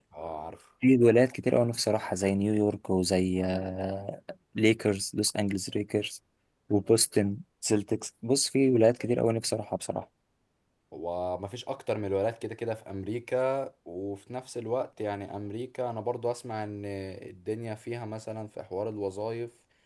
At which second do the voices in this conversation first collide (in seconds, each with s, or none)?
none